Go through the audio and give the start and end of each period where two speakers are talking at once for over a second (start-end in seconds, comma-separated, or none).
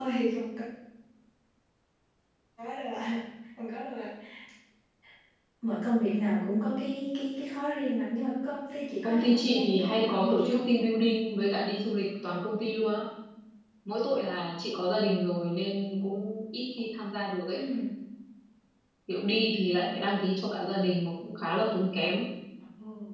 9.0-10.7